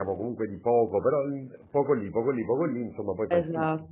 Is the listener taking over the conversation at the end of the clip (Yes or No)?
Yes